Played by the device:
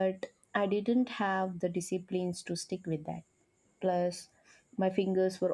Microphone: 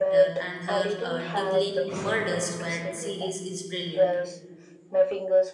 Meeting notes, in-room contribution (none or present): present